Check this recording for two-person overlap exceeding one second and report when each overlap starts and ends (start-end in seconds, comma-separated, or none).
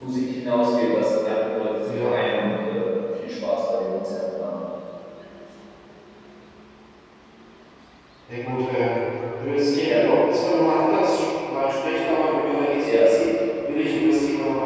none